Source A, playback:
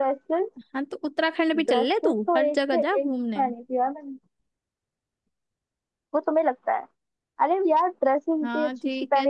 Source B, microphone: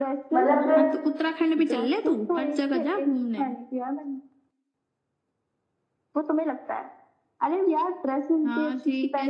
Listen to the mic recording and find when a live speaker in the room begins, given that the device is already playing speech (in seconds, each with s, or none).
0.3 s